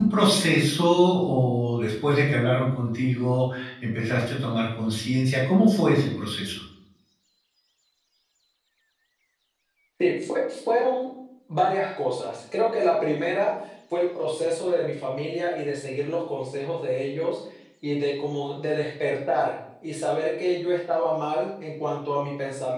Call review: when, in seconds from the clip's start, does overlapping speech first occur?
none

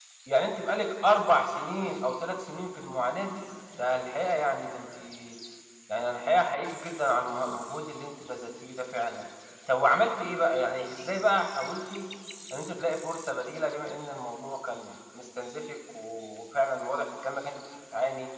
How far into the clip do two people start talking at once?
none

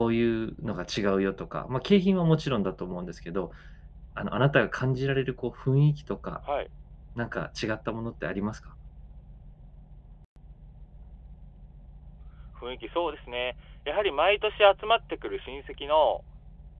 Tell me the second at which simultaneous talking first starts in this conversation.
none

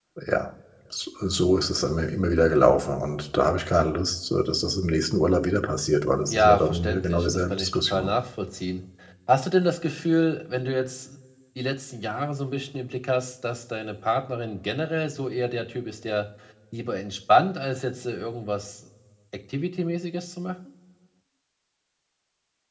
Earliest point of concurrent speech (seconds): 6 s

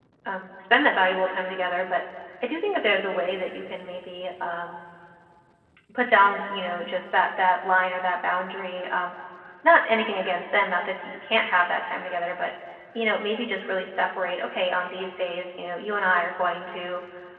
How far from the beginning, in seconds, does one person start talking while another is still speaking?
none

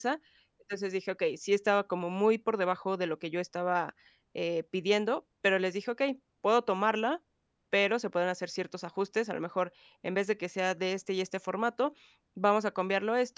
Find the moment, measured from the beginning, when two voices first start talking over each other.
none

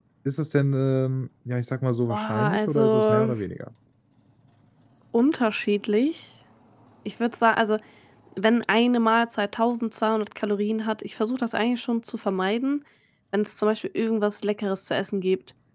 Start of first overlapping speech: 2 s

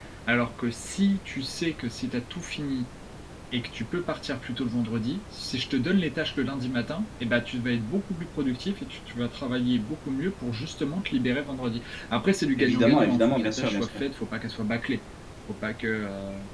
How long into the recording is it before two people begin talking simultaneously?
13 s

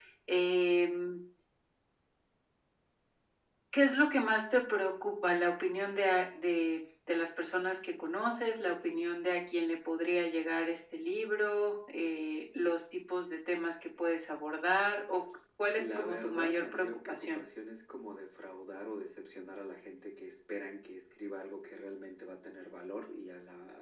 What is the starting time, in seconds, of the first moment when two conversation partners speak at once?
16 s

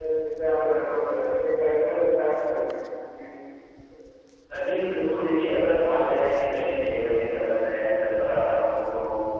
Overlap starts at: none

